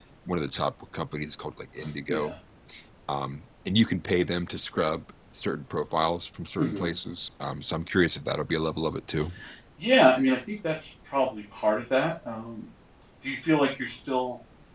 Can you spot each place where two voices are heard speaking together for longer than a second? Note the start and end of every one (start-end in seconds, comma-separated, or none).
none